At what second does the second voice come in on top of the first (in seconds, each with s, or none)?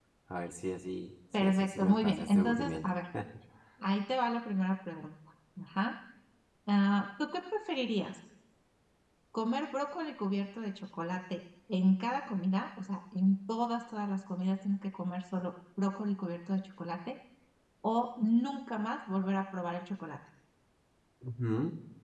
1.3 s